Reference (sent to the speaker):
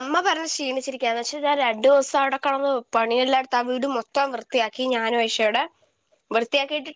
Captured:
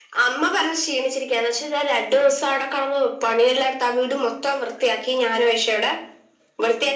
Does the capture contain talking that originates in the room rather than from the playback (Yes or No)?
No